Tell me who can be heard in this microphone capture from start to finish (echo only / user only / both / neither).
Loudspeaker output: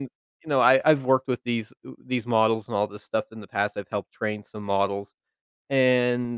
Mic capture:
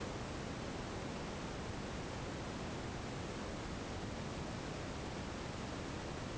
neither